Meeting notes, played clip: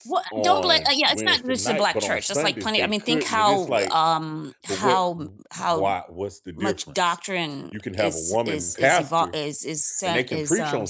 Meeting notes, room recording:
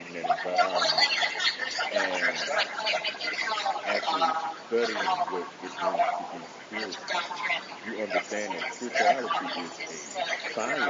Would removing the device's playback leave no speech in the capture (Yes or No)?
No